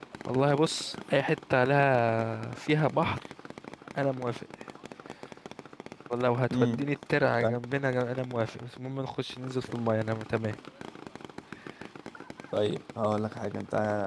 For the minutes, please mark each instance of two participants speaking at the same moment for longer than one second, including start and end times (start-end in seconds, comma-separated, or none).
none